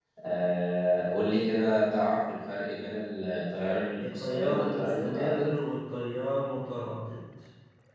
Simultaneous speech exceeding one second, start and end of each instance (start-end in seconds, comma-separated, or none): 4.0-5.5